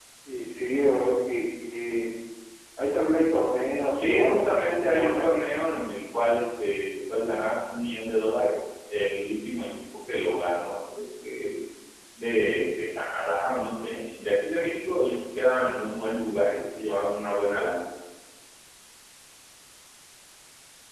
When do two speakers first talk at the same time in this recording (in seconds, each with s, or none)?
3.9 s